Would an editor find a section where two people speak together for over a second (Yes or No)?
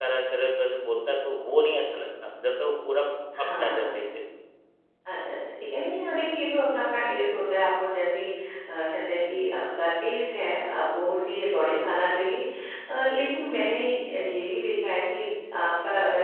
No